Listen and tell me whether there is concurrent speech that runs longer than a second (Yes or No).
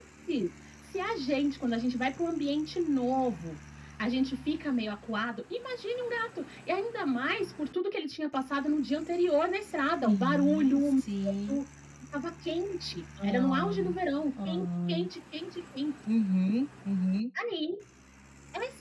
Yes